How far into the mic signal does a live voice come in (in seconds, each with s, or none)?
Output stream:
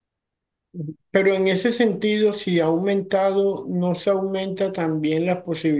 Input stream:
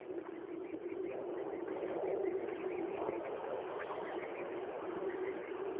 none